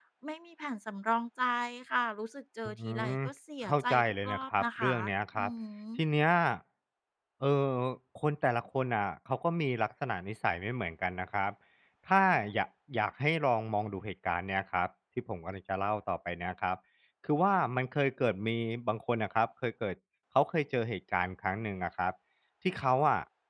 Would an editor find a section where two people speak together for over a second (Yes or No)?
Yes